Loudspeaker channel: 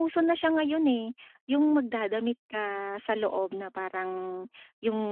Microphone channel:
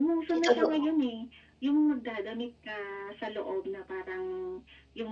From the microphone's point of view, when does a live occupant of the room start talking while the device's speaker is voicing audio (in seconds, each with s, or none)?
0.3 s